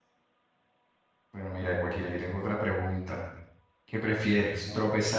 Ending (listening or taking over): listening